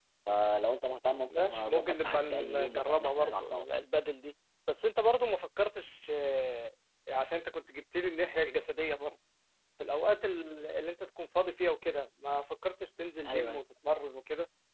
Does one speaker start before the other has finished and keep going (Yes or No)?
Yes